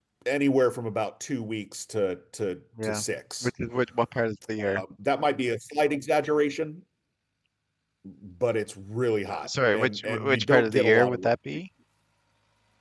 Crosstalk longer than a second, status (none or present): present